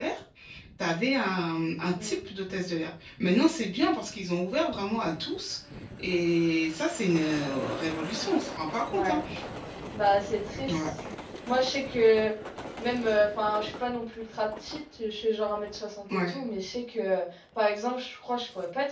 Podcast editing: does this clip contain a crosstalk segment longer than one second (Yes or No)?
No